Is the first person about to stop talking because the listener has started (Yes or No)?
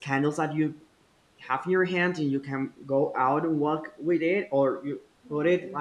No